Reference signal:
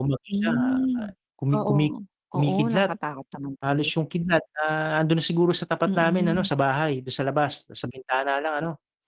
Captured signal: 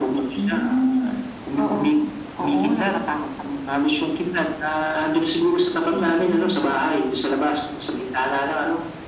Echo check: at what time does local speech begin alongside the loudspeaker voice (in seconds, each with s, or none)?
none